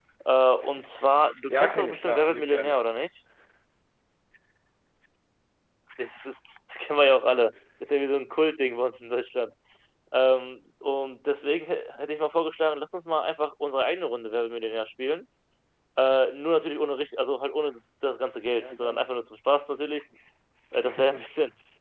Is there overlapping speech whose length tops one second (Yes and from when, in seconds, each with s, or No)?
Yes, from 1.5 s